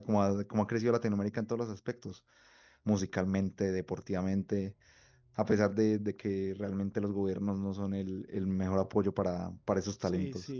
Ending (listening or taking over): taking over